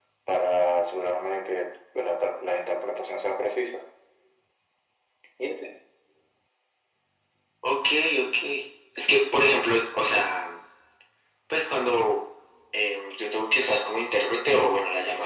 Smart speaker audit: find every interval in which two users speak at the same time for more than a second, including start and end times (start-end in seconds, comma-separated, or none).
none